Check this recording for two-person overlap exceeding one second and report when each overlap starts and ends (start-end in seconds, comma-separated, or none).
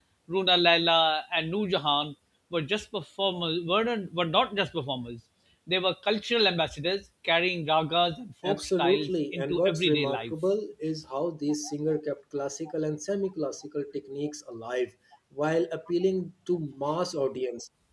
8.4-10.3